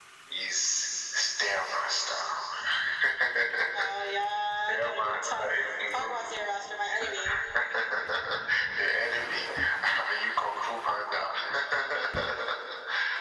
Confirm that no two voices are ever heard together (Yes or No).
No